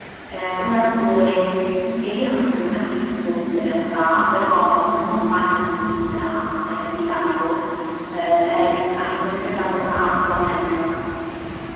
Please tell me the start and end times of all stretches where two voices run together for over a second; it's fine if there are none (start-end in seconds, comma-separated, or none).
none